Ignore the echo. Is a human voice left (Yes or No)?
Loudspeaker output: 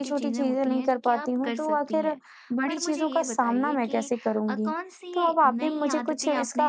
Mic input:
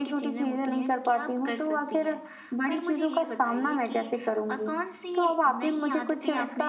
No